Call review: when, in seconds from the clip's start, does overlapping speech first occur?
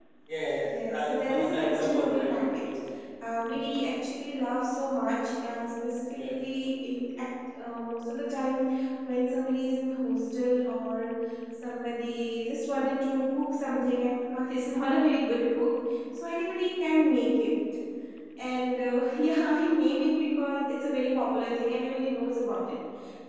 0.6 s

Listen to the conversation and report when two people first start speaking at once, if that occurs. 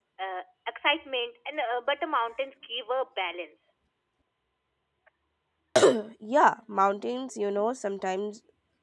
none

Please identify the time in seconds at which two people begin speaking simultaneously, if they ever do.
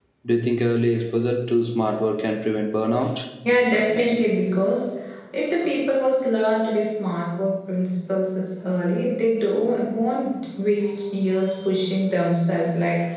none

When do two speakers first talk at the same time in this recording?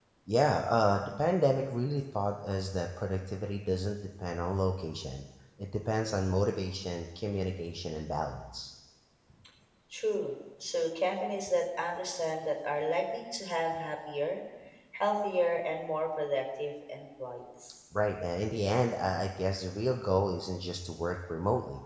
none

